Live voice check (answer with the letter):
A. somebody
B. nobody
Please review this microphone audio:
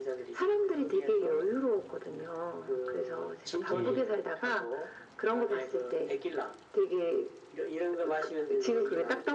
A